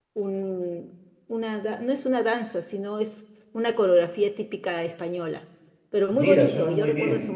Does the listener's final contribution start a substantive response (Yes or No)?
Yes